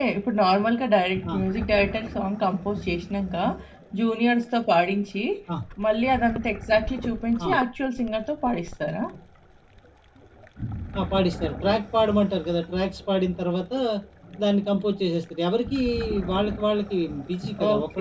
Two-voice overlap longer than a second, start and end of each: none

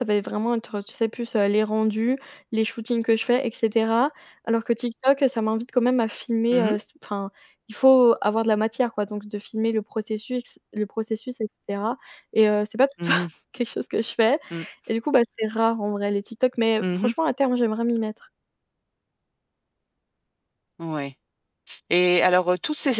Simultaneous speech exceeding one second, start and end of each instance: none

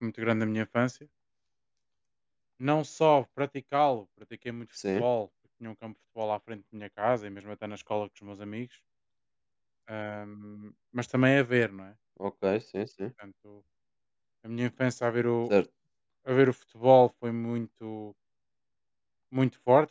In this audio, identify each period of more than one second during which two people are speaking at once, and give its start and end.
none

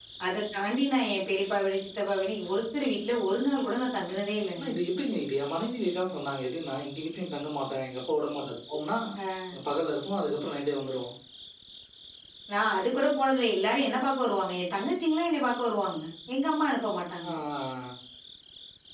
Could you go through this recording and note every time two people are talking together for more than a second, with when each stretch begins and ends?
none

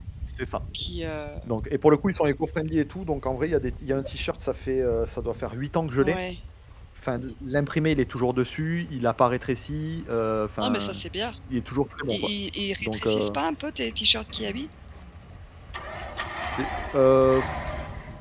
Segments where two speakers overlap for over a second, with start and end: none

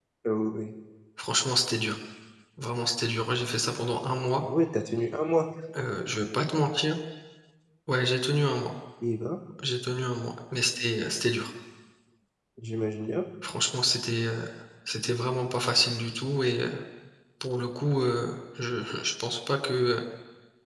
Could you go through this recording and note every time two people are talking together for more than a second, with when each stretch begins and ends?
none

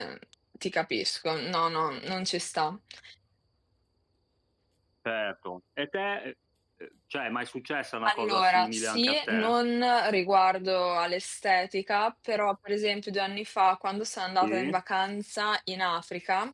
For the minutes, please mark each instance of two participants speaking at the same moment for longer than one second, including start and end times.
8.1-9.5

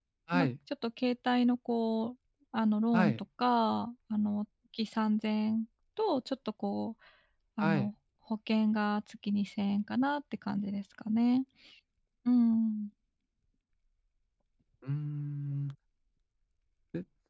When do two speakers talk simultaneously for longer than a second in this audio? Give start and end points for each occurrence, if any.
none

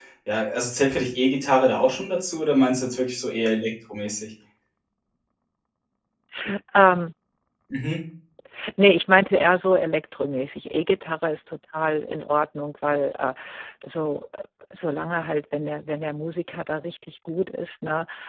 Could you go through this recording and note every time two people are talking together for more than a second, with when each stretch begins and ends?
none

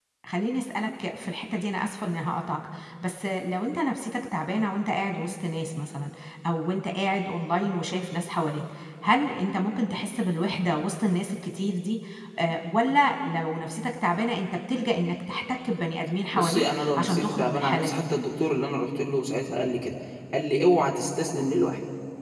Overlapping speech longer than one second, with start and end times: 16.3-18.0

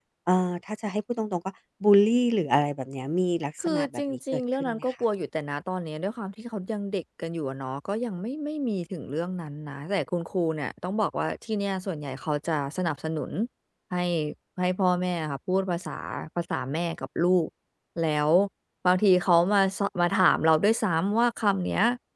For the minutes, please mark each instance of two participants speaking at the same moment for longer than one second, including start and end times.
3.6-4.9

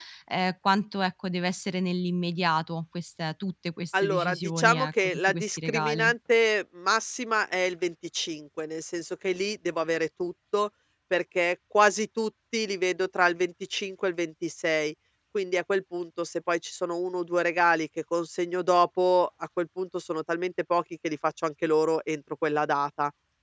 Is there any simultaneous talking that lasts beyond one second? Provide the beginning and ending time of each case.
4.0-6.1

